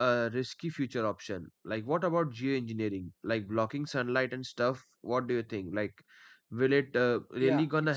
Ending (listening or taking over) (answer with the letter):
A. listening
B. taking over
B